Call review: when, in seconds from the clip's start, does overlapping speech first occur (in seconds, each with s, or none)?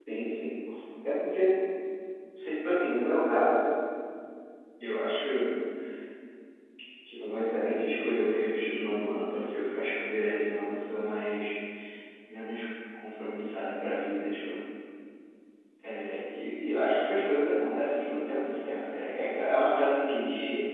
none